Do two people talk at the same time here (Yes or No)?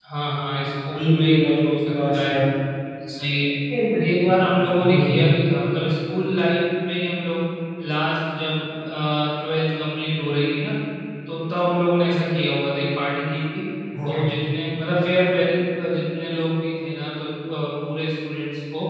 Yes